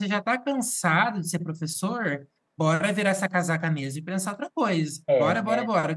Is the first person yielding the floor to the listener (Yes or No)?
Yes